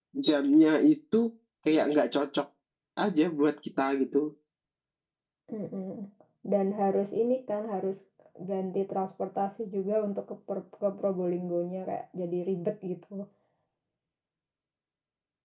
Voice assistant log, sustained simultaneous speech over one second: none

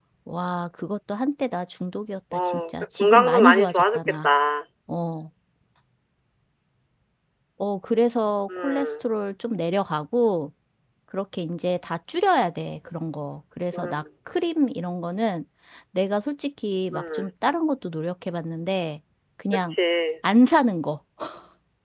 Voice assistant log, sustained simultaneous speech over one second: present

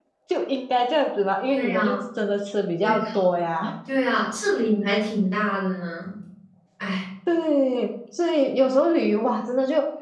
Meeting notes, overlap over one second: none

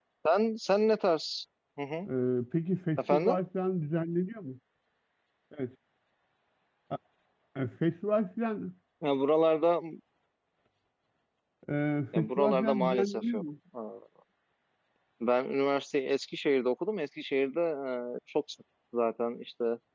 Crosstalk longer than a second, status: present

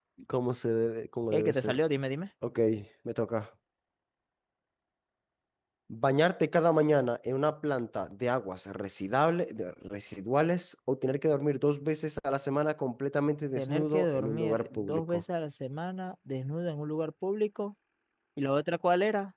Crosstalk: present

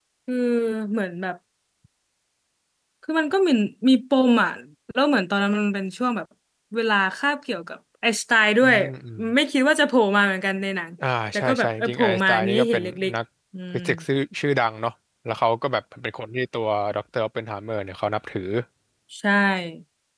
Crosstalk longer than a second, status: present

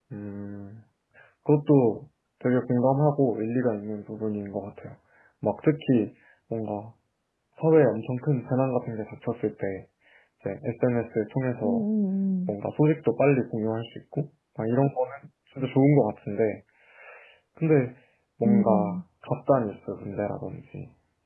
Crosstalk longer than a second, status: none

